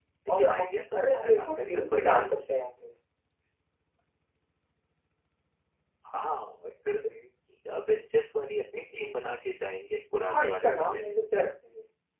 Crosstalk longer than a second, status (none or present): present